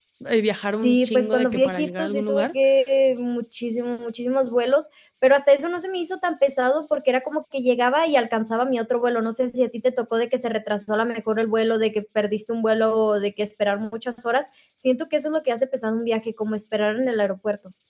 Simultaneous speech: Yes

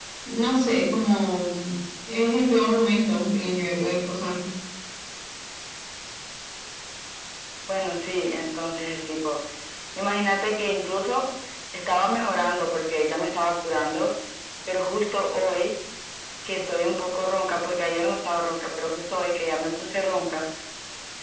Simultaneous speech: No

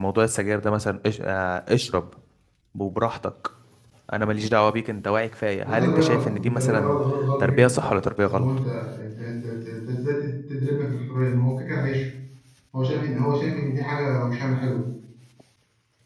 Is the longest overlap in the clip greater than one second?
Yes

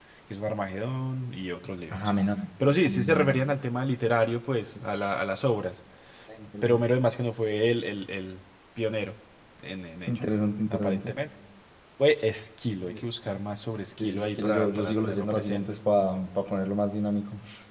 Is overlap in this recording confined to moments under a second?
No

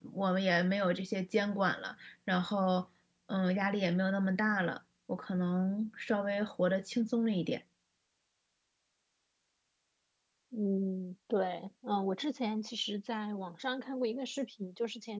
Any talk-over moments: No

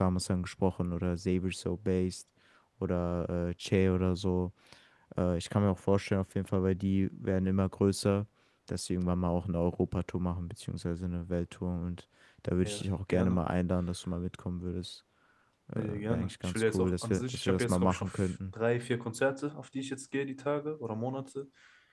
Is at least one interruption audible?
Yes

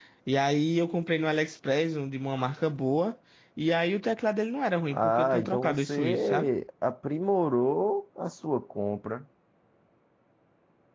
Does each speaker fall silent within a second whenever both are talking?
No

